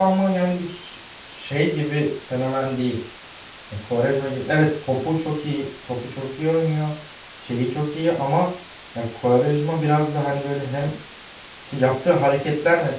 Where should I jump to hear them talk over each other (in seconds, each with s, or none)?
none